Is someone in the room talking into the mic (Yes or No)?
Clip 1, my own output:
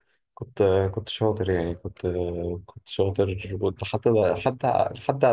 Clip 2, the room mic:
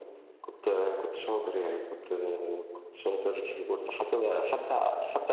No